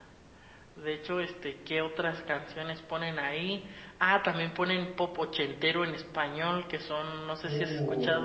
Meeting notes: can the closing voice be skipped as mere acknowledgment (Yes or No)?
Yes